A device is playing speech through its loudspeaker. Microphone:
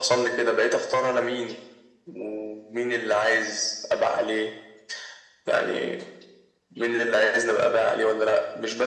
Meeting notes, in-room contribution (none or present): none